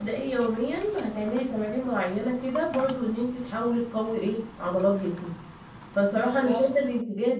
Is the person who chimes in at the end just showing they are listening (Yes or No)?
Yes